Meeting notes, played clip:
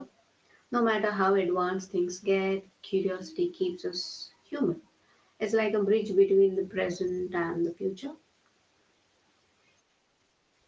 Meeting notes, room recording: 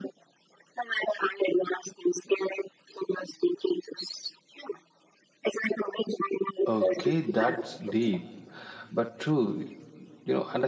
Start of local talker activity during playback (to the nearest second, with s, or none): 7 s